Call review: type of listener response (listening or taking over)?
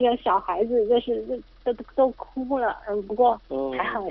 listening